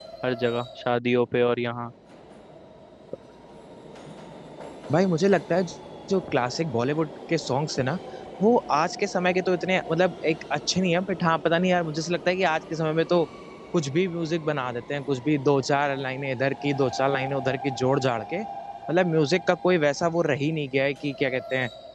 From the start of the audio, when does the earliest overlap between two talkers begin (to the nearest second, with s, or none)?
none